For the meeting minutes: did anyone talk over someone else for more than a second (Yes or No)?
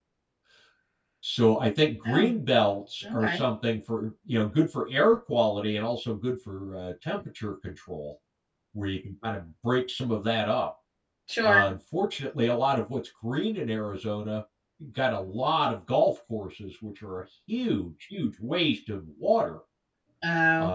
No